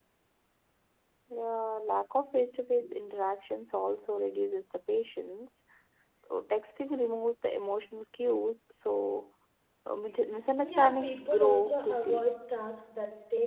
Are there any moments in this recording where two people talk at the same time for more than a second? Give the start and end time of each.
10.6-12.3

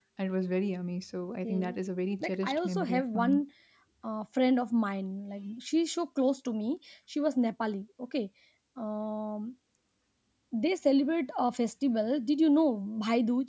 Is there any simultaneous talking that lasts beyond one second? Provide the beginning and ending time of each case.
2.2-3.4

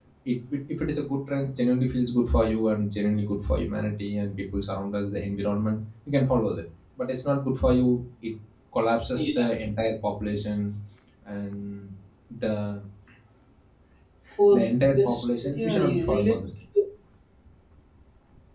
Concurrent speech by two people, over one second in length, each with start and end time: 15.0-16.4

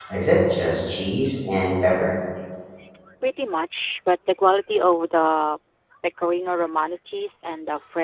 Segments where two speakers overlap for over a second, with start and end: none

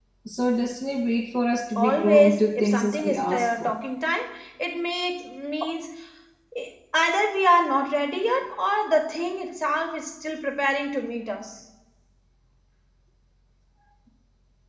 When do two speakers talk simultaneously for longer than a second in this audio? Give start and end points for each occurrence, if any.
1.8-3.8

